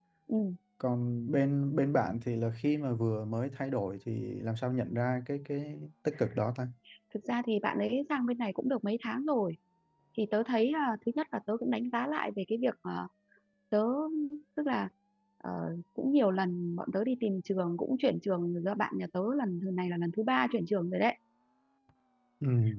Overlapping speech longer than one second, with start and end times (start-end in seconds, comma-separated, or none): none